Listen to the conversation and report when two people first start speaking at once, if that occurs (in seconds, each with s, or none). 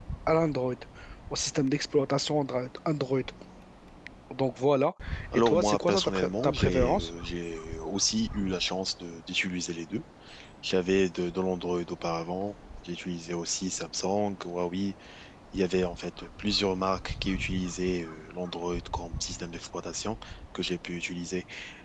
5.3 s